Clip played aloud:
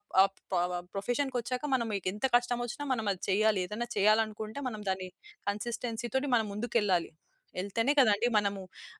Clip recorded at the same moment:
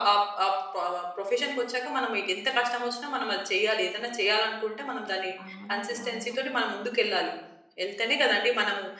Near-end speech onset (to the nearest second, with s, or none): 5 s